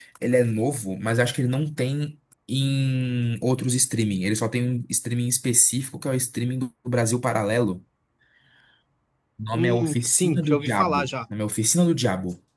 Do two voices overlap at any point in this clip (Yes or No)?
Yes